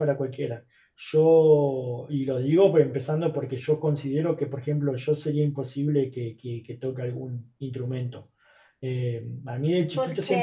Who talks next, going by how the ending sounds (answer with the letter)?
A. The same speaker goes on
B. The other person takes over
A